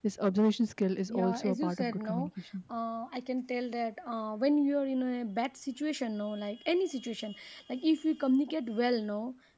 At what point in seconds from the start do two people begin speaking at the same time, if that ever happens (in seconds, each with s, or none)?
1.1 s